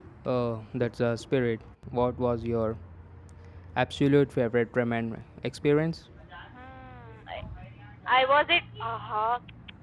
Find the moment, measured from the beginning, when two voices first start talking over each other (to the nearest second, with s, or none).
none